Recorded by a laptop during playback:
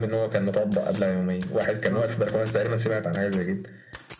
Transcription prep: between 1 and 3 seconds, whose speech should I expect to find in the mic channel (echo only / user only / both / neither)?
both